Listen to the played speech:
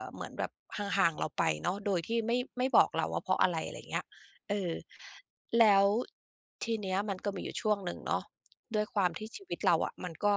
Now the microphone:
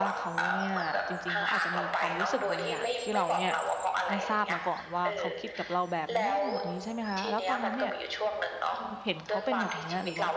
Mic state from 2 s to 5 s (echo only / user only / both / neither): both